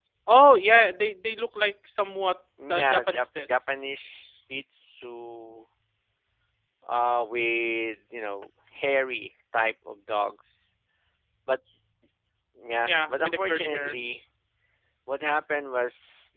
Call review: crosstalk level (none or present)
present